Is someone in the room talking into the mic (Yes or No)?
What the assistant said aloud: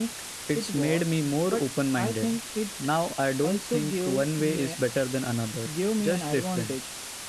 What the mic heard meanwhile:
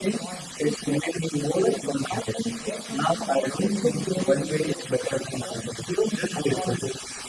Yes